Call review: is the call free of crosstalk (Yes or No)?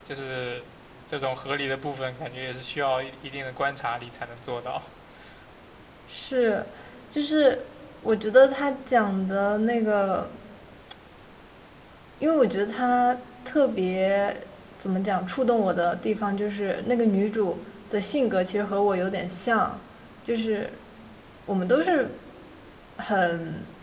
Yes